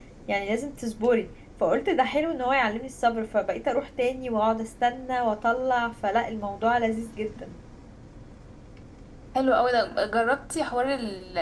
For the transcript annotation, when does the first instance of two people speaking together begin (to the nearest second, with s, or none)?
none